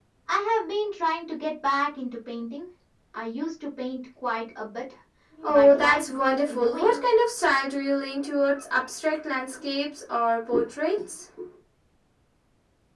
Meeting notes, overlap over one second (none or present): present